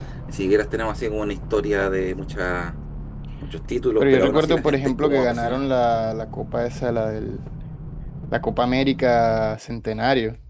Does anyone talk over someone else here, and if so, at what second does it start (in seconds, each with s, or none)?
4.0 s